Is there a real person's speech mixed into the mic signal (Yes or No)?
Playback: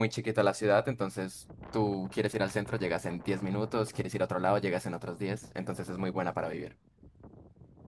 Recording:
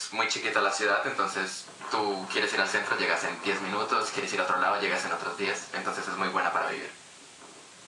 No